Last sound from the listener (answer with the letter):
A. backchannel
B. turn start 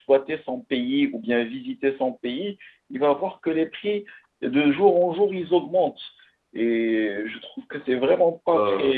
A